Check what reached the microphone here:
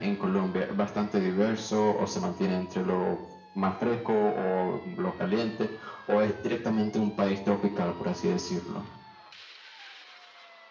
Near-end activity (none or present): none